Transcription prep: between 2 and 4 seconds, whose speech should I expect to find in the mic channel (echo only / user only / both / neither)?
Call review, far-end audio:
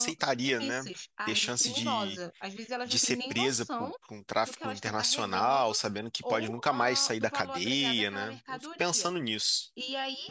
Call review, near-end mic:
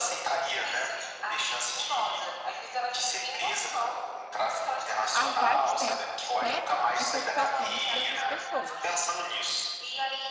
echo only